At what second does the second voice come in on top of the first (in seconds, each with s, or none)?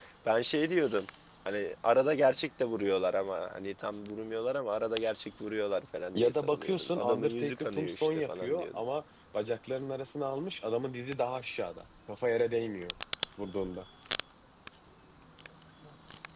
6.2 s